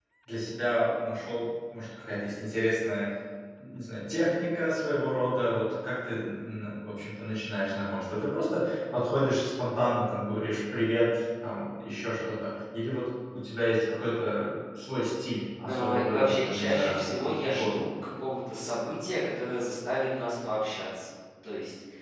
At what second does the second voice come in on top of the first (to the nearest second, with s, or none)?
16 s